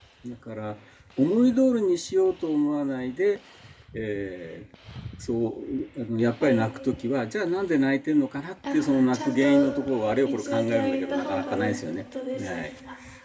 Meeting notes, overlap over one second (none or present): present